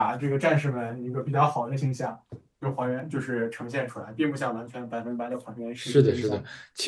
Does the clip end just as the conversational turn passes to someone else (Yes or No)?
Yes